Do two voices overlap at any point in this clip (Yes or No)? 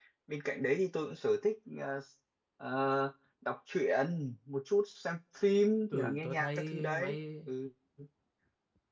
Yes